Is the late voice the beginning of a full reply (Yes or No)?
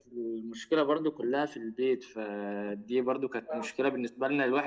No